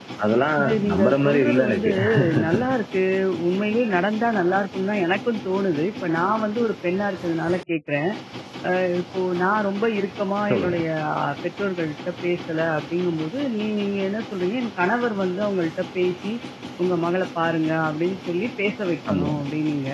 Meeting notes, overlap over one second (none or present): present